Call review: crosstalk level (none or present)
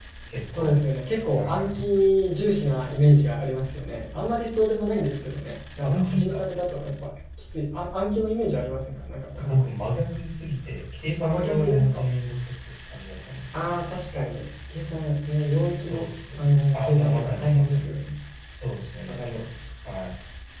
present